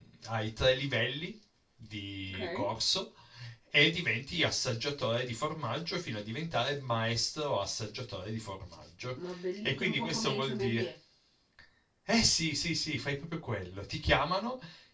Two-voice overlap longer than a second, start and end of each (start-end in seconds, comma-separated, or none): 9.6-10.9